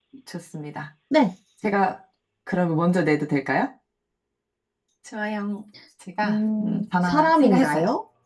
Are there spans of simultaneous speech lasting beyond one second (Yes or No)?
Yes